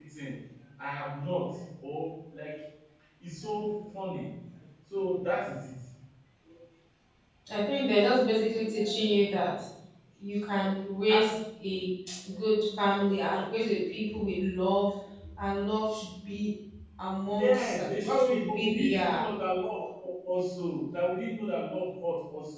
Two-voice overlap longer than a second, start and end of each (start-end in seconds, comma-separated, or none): 17.4-19.2